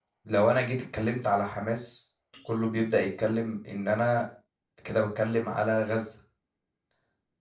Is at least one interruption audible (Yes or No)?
No